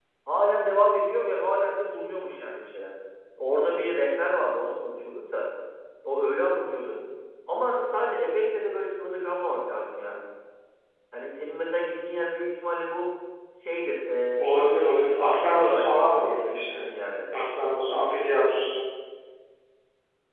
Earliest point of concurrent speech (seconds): 14.9 s

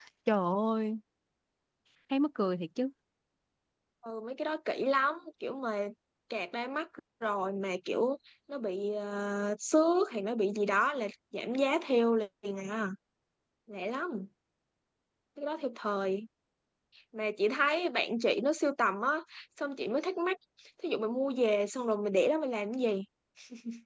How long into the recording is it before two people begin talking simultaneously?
none

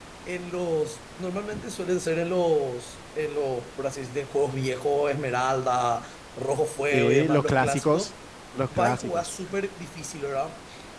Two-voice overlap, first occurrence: 6.9 s

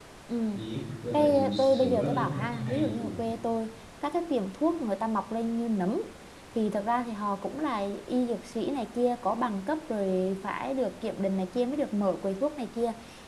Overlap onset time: 1.1 s

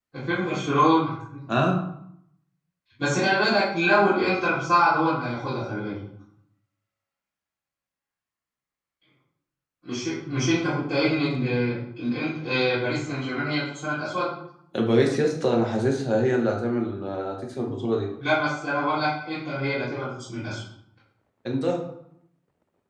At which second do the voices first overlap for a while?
none

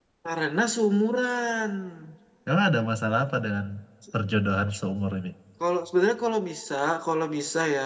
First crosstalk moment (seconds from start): none

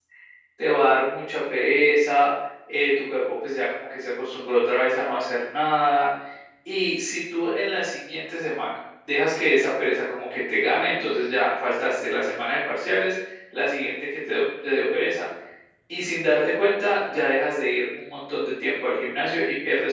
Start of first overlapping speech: none

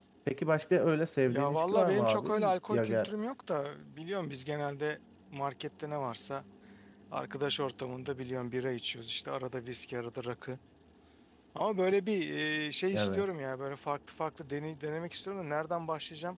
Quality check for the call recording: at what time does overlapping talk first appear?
1.3 s

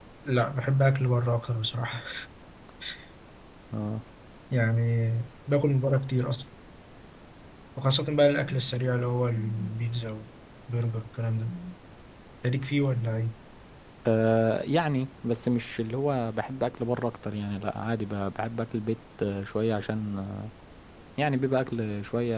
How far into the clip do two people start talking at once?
none

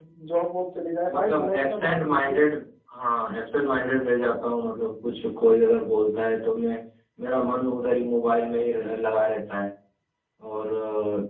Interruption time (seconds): 1.1 s

